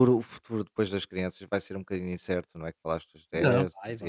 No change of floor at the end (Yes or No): No